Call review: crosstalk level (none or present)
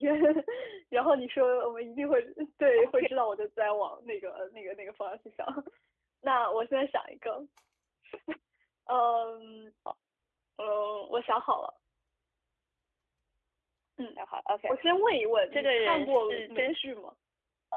present